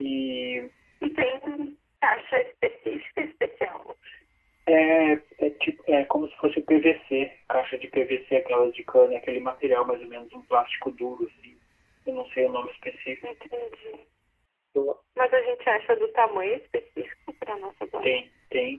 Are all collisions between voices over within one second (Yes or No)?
Yes